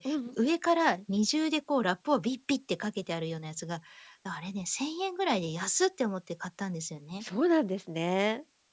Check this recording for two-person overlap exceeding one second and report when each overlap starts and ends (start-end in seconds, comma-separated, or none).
none